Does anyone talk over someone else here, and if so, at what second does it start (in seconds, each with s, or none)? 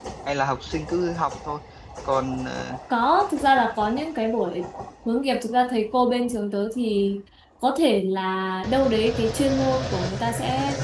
none